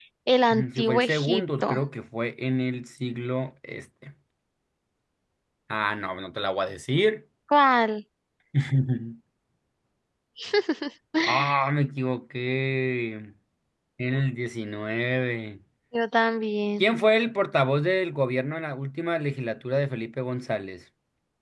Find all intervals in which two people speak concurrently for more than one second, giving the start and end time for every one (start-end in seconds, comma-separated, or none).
0.5-1.8